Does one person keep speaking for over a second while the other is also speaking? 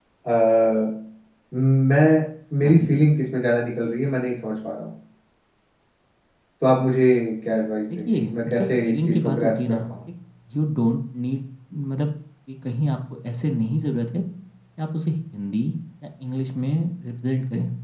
Yes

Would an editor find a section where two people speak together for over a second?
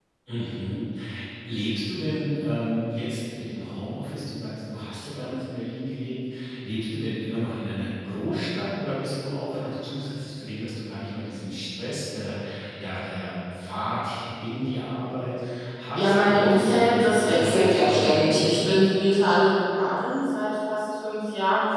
Yes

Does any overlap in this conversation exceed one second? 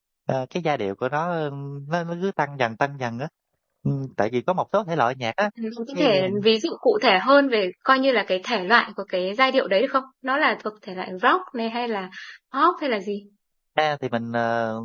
No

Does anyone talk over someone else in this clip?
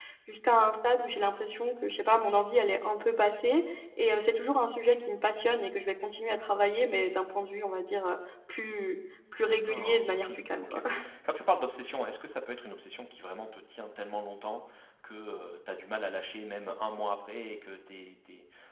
Yes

